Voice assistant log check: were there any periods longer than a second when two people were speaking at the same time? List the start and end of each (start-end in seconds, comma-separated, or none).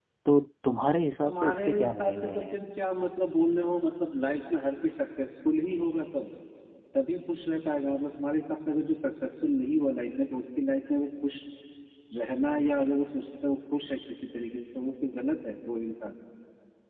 1.2-2.6